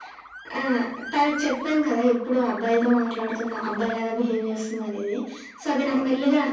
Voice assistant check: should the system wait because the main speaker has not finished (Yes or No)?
Yes